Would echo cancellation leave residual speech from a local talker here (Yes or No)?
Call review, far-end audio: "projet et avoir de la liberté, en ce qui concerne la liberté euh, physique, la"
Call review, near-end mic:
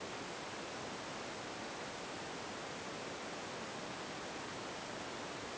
No